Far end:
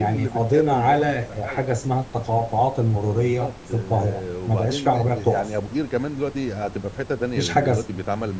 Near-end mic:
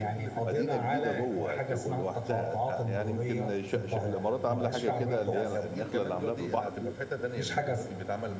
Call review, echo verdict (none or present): present